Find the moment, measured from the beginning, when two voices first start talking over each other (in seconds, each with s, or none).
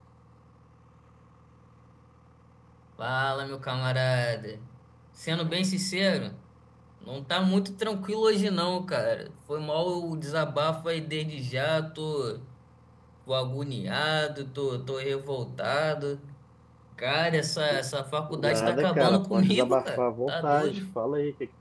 18.3 s